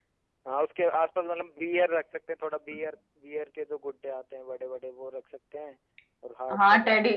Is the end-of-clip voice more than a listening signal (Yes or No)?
Yes